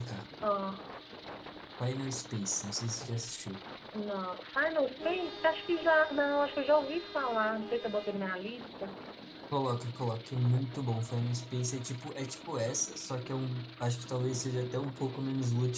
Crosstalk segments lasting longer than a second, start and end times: none

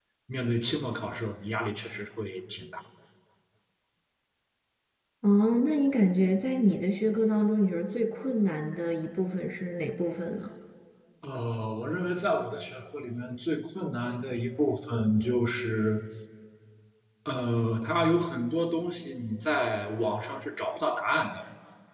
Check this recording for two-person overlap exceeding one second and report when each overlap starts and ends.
none

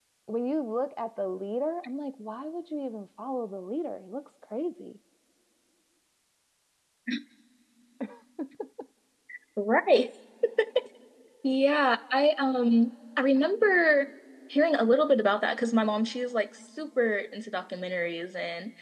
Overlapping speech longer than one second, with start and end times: none

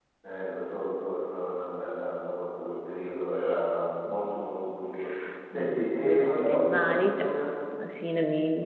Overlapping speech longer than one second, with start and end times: 5.5-7.3

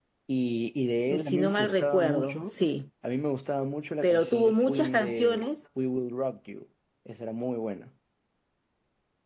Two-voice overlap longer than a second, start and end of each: 1.1-2.6, 4.0-5.5

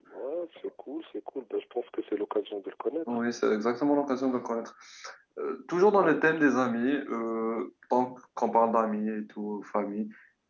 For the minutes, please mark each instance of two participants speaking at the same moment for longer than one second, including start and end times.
none

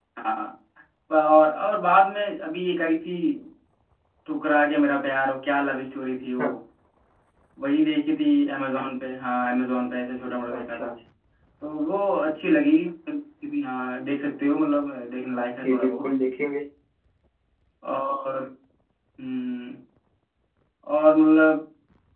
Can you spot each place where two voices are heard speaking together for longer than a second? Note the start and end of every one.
none

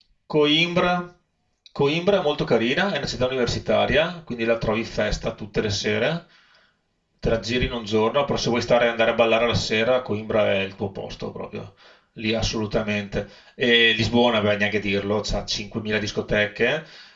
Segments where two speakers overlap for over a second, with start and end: none

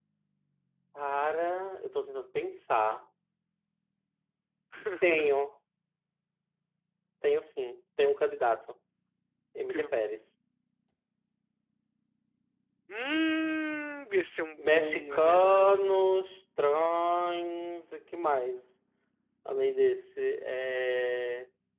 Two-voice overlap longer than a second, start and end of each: 14.6-15.9

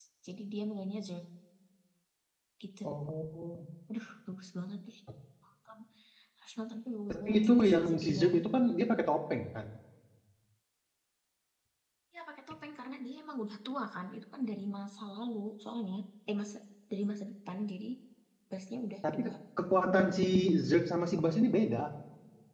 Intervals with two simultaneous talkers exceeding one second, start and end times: 7.1-8.4

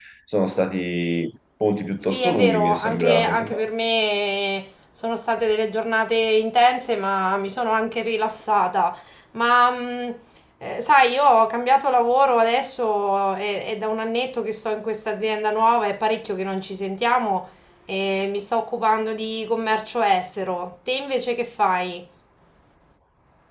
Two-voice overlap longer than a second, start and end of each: 2.0-3.6

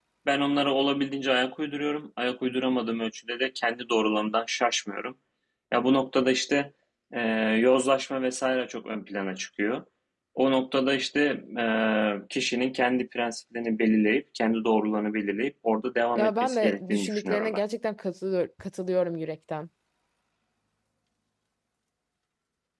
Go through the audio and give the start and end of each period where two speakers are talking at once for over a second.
16.2-17.6

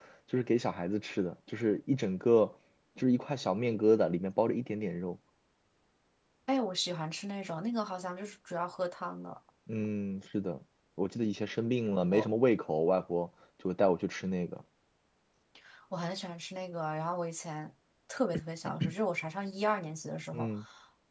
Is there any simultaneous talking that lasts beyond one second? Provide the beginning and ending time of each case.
none

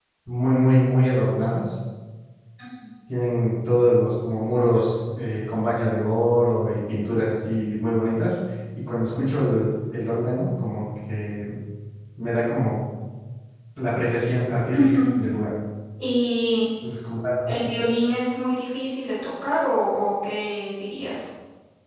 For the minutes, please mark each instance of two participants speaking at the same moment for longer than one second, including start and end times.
none

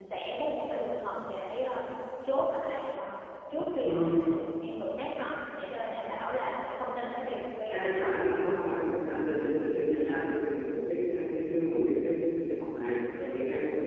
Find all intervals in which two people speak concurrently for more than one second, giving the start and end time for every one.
7.7-9.5

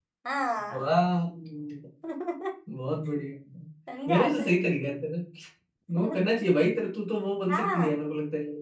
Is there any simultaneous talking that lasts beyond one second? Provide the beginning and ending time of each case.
none

